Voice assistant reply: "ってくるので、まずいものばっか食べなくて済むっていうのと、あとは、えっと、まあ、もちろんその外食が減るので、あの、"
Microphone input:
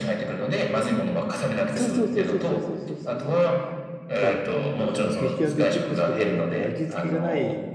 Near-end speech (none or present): present